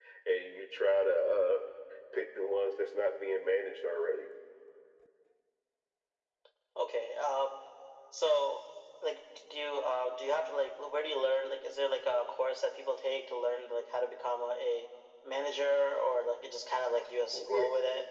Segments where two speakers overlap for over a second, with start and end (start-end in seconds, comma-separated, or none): none